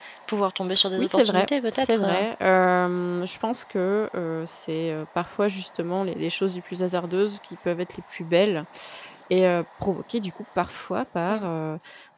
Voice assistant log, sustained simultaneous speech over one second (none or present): present